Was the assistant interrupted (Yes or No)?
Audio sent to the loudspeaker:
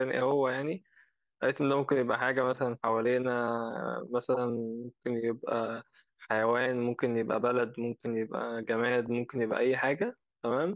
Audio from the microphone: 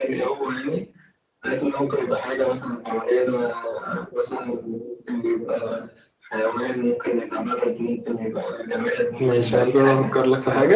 Yes